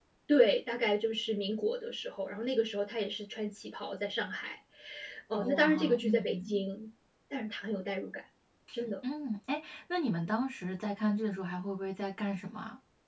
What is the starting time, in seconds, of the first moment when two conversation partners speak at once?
5.3 s

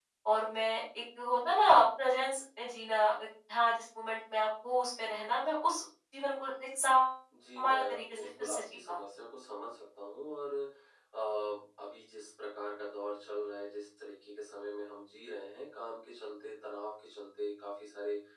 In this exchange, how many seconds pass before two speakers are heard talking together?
7.6 s

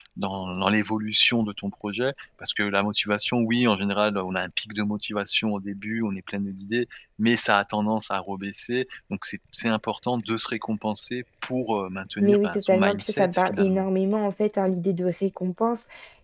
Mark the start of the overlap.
12.2 s

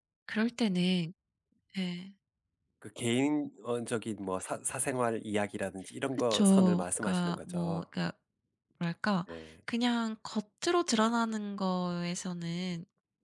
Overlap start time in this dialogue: 6.3 s

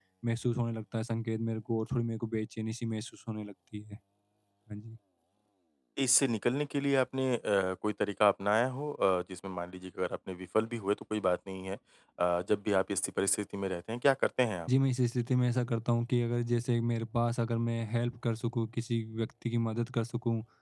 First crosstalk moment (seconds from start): none

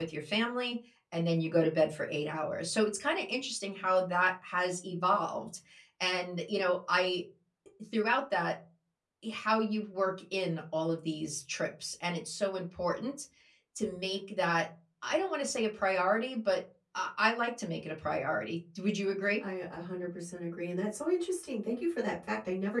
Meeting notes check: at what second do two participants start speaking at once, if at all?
none

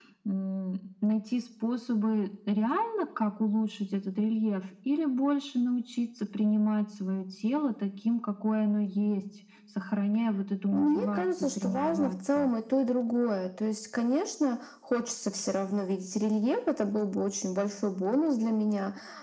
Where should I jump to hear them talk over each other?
10.7 s

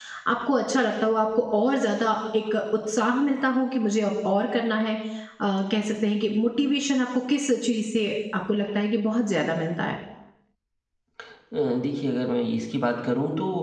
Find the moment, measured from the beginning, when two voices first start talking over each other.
none

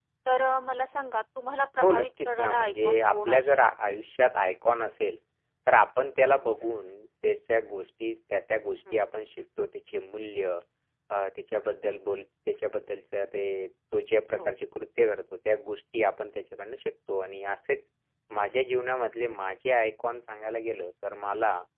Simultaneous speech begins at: 1.8 s

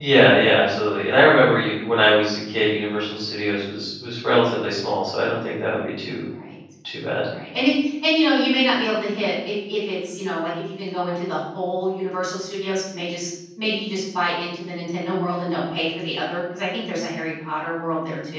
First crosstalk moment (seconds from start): none

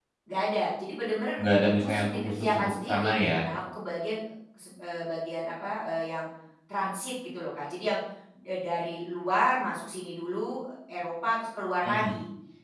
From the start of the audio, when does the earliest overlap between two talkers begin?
1.8 s

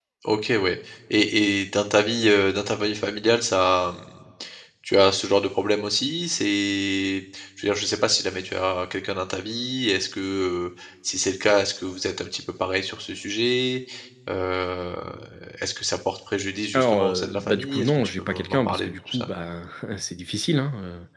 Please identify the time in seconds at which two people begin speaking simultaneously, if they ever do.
16.7 s

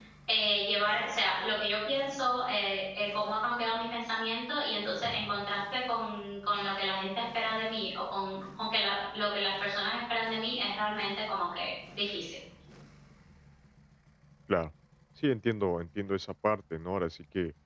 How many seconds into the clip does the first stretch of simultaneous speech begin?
none

